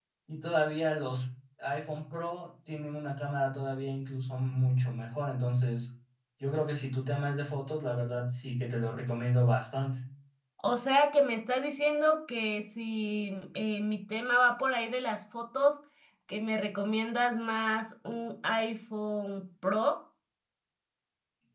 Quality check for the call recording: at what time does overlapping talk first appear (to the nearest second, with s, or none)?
none